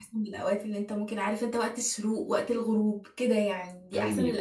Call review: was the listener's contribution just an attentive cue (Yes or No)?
No